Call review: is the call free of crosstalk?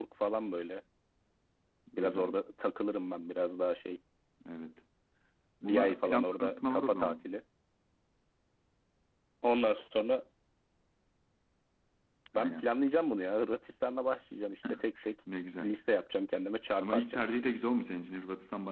No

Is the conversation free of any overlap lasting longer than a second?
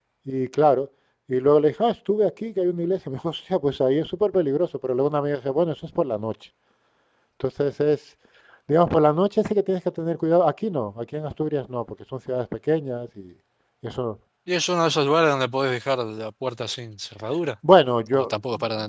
Yes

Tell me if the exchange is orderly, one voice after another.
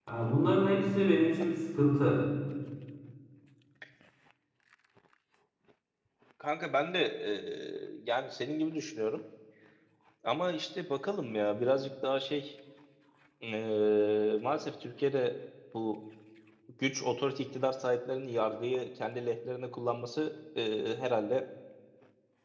Yes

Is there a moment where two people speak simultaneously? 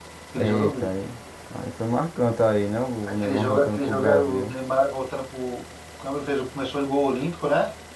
Yes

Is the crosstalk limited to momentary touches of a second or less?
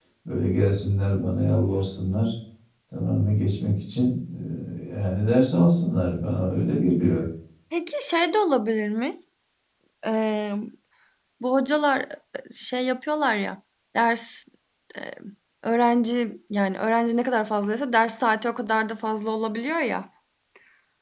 Yes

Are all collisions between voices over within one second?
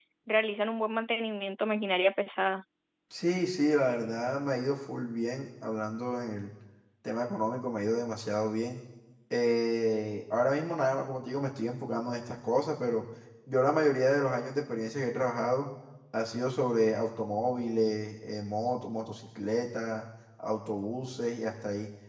Yes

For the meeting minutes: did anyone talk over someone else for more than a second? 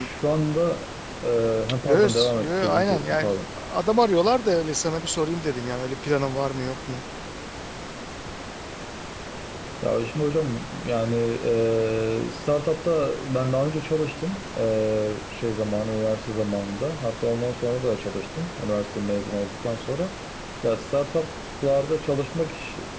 Yes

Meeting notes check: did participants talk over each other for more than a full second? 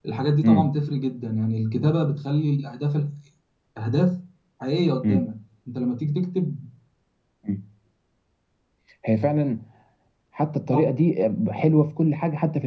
No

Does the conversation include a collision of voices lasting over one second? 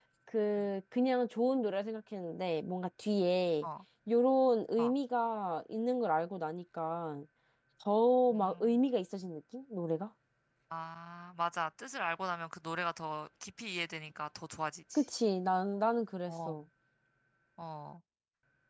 No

